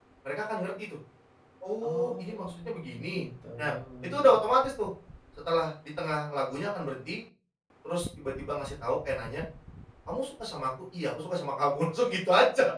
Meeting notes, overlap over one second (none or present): present